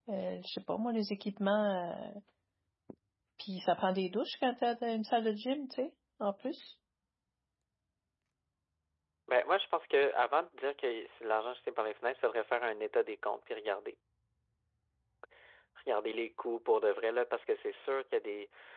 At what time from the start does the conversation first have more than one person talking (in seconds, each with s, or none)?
none